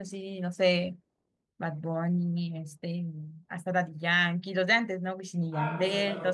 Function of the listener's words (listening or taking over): taking over